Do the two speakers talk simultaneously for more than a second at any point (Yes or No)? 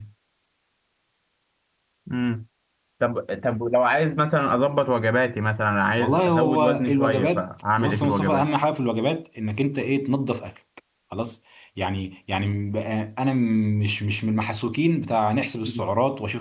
Yes